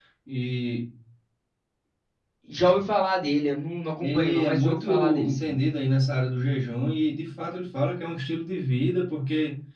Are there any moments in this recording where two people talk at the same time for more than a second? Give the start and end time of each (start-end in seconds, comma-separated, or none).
4.0-5.5